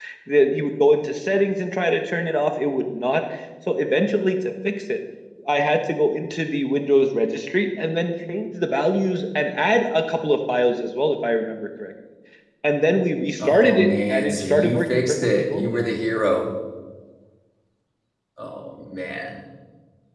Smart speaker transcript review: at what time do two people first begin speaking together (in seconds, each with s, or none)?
13.4 s